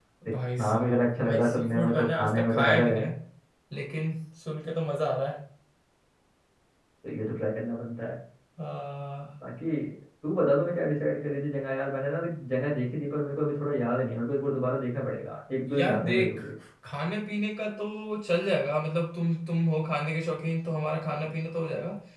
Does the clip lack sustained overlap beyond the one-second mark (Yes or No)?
No